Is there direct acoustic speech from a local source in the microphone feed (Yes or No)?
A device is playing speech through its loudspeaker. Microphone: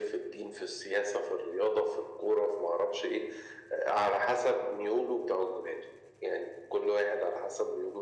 No